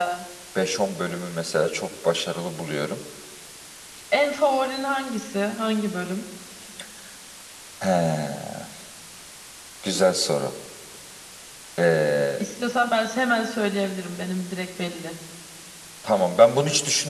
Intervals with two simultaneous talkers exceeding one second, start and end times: none

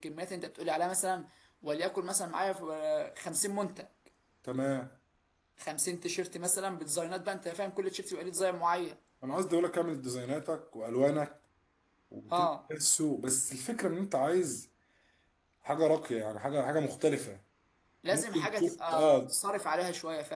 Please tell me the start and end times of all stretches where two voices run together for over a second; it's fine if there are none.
18.1-19.3

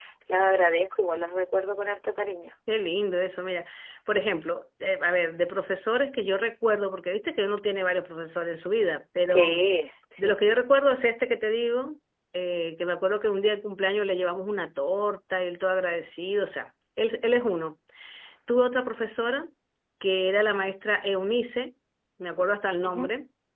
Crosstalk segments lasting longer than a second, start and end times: none

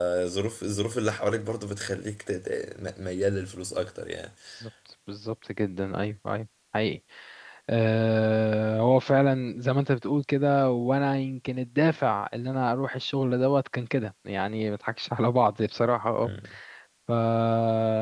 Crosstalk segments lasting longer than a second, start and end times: none

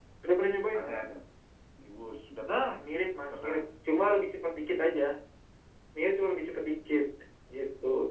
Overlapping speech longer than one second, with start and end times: none

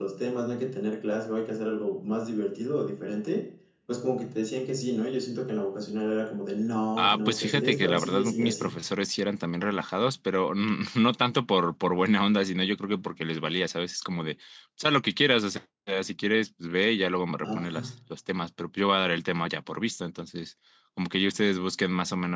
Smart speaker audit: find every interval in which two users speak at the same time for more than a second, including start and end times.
7.0-8.7

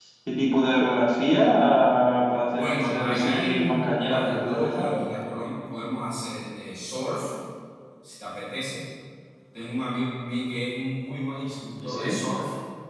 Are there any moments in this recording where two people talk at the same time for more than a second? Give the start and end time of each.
2.5-4.9

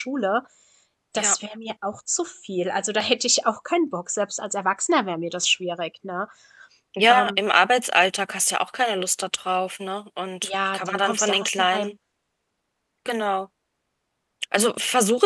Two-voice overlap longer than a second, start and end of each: 10.4-11.9

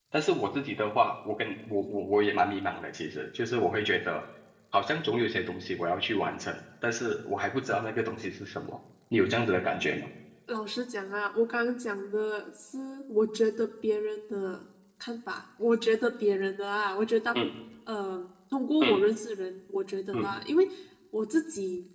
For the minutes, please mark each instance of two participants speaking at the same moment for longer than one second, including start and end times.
none

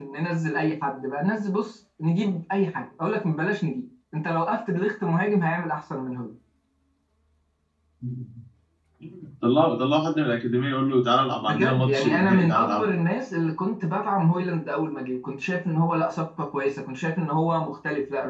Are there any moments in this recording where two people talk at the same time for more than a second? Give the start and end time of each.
11.3-12.9

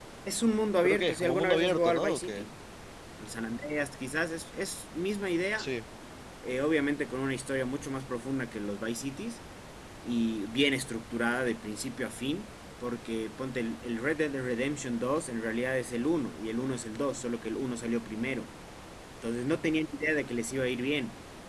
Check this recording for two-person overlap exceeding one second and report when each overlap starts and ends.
0.8-2.5

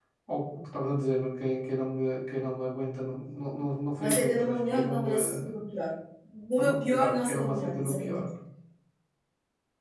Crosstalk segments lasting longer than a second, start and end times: 4.0-5.5, 6.6-8.2

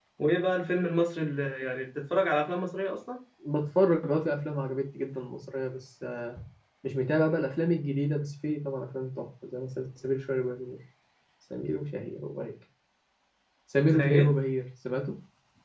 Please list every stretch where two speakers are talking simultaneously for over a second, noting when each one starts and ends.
none

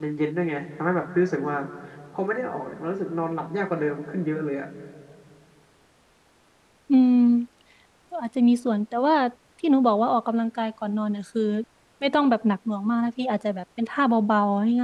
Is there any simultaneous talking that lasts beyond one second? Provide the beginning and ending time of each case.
none

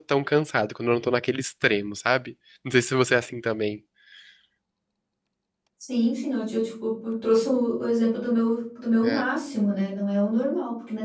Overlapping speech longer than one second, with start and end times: none

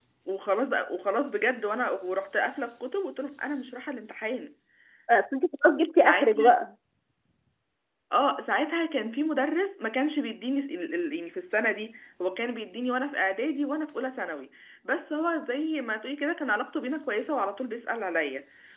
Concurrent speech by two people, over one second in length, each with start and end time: none

